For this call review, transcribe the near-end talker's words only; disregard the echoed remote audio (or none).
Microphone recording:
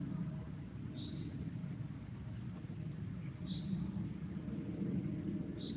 none